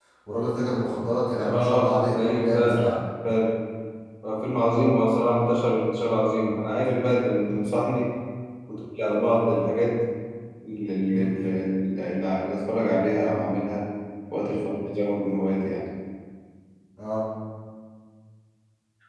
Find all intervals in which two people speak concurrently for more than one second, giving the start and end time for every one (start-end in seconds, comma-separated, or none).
1.4-2.9